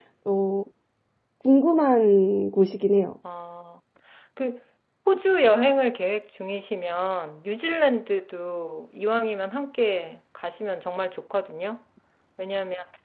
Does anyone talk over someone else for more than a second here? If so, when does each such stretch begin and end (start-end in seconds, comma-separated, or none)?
none